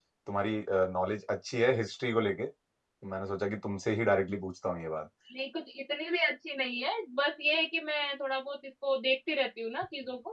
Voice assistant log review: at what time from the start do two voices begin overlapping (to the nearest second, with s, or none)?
none